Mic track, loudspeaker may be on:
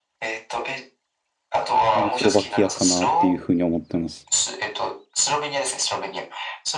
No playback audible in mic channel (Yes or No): No